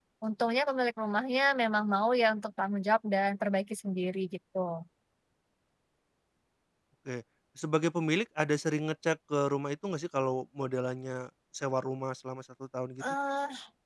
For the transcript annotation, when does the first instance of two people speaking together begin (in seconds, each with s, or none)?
none